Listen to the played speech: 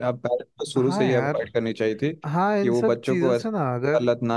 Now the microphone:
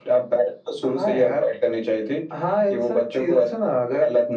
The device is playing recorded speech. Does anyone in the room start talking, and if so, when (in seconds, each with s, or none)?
none